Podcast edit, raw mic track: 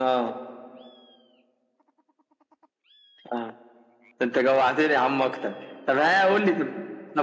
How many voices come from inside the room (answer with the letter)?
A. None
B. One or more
A